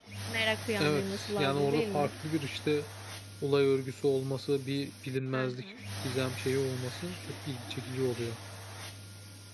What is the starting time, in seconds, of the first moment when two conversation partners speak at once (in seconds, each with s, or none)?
0.8 s